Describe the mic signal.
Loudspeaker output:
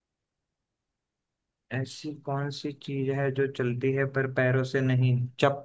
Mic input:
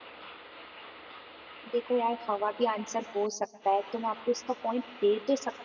user only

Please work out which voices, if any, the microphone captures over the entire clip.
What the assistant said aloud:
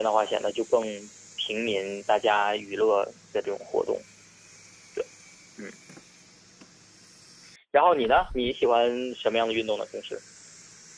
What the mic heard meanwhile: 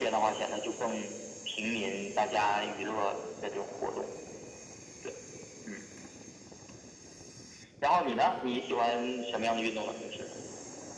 echo only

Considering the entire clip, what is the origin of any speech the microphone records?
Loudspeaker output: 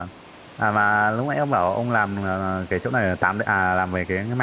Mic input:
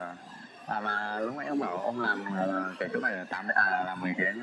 echo only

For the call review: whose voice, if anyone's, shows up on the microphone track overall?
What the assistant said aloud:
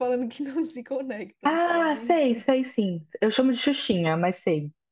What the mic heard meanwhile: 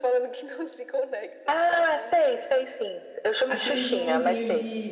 both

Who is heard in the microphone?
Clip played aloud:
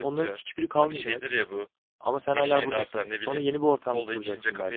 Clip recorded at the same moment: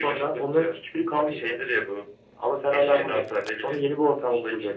echo only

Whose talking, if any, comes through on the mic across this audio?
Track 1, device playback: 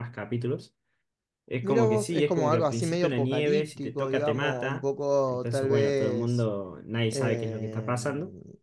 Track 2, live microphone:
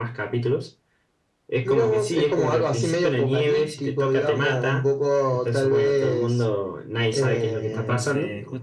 both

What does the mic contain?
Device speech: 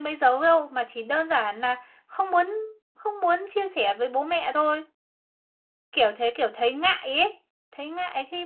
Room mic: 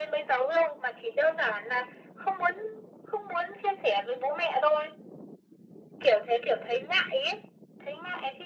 echo only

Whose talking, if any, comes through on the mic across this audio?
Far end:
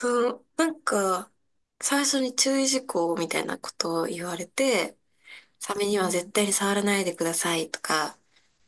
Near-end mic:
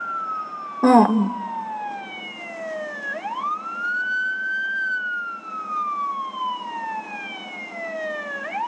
user only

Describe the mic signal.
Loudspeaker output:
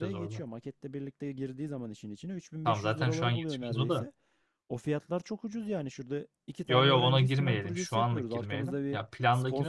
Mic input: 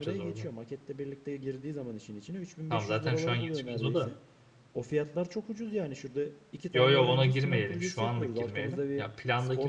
echo only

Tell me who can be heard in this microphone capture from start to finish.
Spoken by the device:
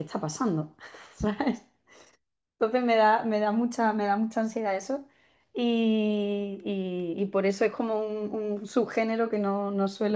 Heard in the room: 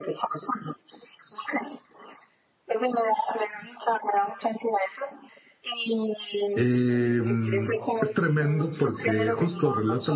both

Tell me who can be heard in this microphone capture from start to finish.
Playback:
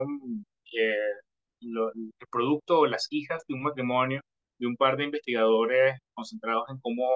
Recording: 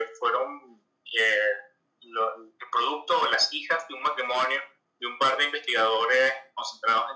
echo only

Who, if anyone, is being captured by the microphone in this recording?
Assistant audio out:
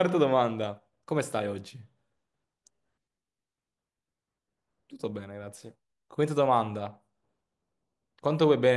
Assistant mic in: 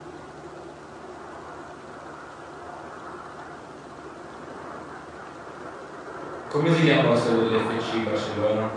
user only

